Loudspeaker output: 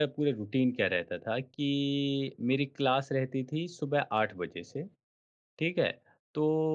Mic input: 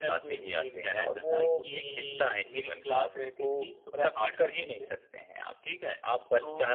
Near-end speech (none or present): present